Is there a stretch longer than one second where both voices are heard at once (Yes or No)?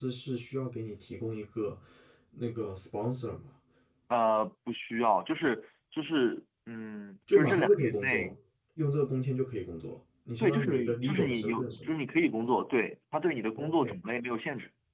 Yes